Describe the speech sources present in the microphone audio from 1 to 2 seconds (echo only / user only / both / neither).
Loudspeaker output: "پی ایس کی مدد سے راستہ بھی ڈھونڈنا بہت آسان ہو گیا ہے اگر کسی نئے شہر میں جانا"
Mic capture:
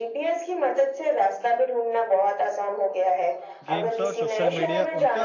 echo only